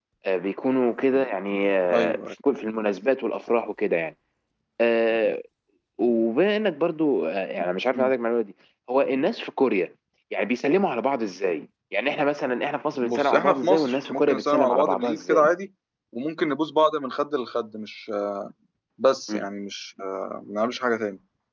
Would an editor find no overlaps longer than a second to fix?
No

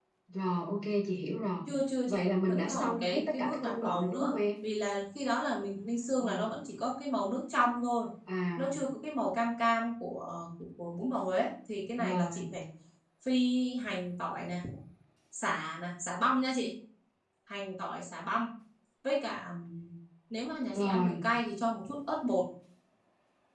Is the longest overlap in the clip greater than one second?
Yes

